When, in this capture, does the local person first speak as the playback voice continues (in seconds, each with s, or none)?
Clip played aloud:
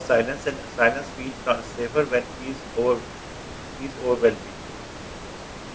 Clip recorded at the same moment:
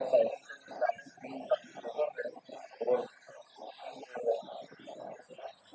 none